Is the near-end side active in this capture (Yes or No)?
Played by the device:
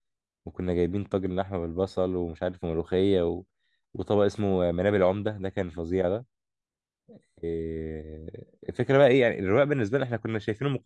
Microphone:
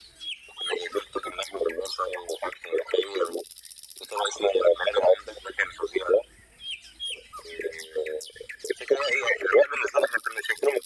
No